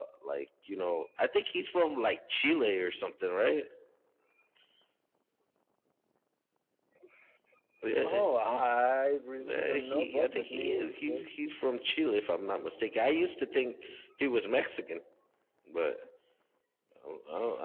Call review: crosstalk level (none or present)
present